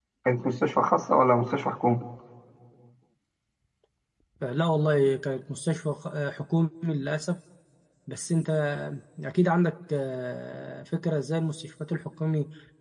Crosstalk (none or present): none